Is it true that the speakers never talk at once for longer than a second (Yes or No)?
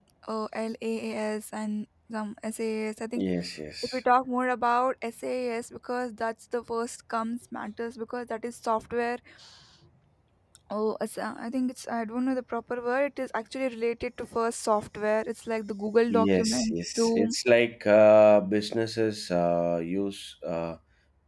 No